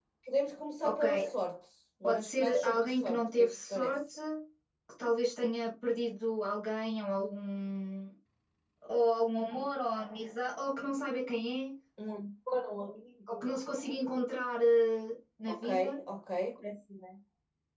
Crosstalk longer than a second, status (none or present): present